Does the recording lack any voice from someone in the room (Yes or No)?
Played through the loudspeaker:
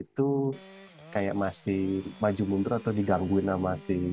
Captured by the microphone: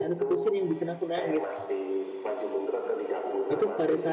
No